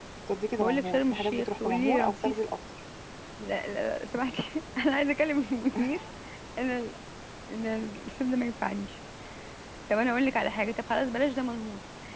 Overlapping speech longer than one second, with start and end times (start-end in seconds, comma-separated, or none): 0.6-2.4